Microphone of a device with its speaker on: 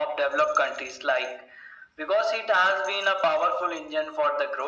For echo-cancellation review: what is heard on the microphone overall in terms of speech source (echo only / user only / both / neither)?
echo only